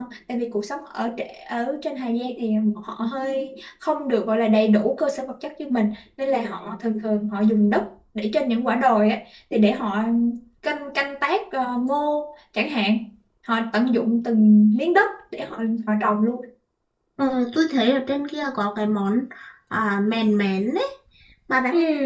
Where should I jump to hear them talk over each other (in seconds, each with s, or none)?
none